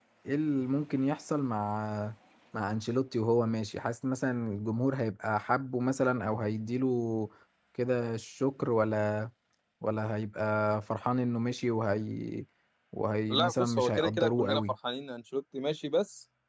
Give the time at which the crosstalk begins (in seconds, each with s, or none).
13.3 s